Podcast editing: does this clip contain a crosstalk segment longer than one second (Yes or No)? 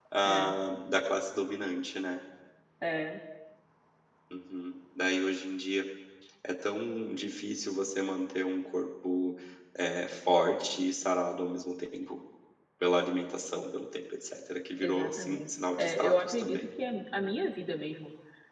Yes